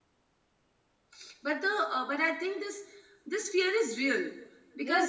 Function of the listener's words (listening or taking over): taking over